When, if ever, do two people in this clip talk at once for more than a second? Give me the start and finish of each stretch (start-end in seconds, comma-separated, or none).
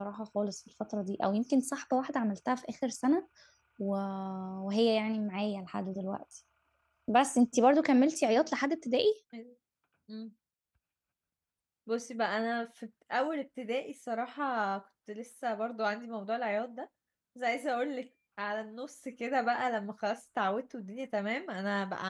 none